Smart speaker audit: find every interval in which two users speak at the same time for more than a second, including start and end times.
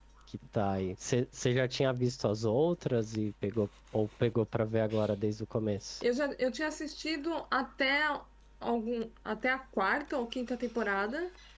none

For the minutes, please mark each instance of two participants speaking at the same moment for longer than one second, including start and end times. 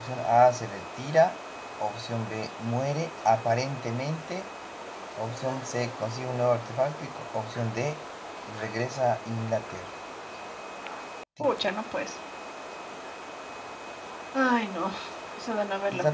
none

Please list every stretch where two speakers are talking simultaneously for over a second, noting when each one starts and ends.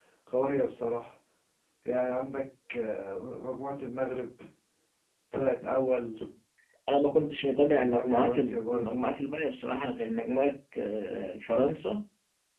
7.7-9.0

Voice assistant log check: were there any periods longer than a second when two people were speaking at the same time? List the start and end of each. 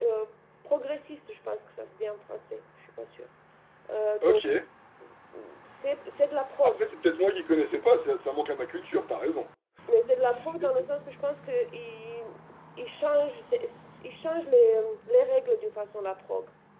none

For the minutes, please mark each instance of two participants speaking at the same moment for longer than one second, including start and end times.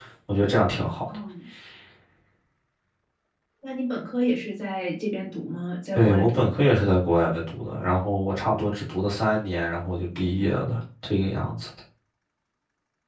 none

